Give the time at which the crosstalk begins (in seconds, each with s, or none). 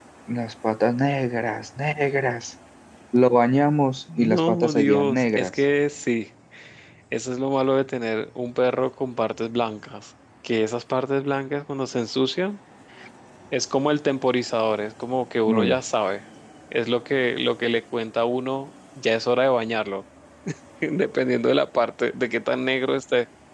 4.2 s